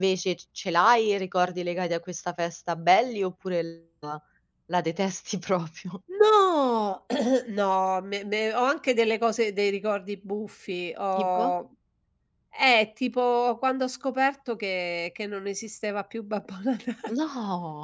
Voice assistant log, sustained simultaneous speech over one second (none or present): none